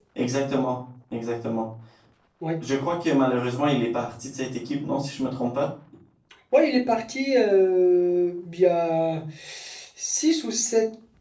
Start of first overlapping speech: none

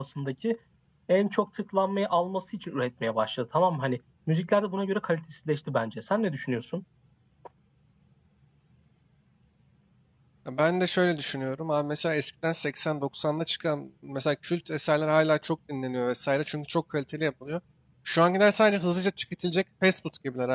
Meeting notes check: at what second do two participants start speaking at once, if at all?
none

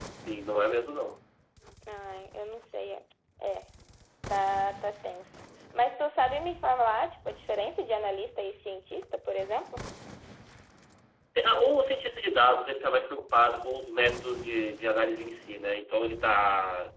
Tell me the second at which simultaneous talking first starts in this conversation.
none

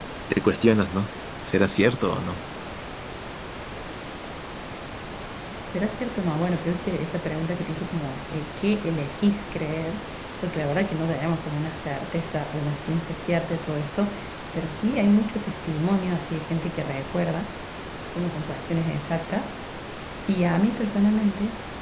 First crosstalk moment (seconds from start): none

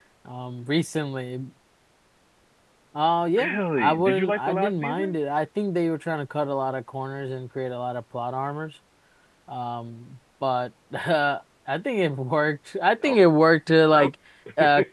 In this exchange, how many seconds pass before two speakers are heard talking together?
3.4 s

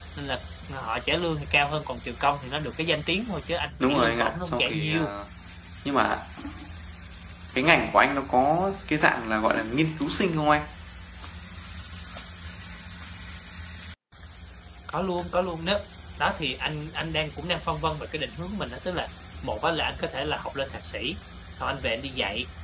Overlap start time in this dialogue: 3.8 s

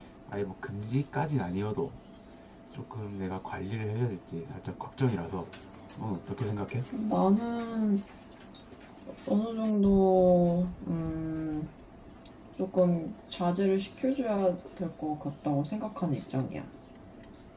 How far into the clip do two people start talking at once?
none

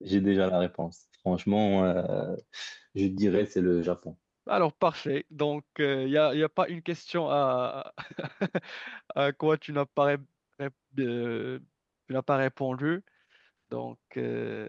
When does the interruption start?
none

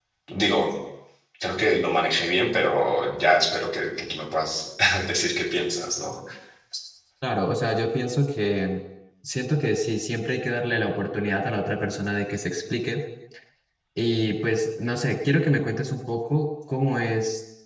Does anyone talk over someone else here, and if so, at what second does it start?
none

